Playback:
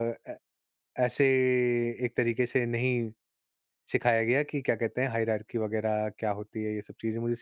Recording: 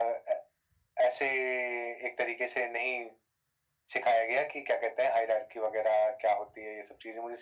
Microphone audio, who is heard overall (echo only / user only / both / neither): echo only